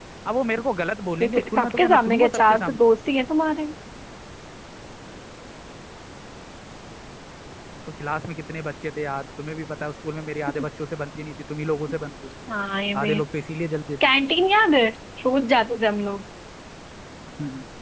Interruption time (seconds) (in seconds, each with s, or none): 1.2 s